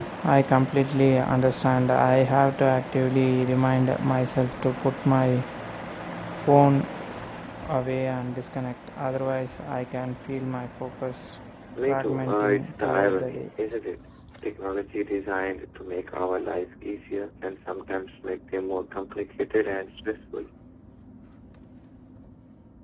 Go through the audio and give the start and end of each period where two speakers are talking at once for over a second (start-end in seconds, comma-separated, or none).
11.9-13.4